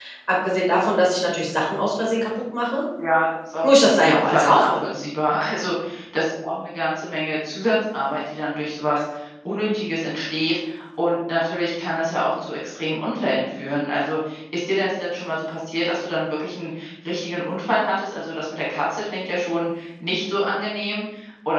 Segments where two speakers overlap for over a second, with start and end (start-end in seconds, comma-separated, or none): 3.6-4.8